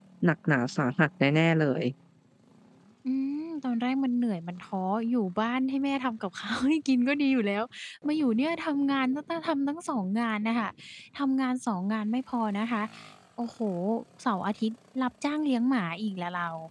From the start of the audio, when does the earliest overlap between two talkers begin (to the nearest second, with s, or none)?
none